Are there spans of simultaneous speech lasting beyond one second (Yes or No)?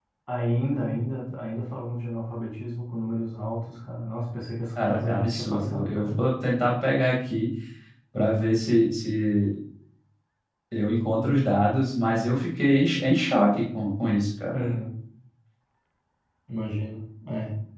Yes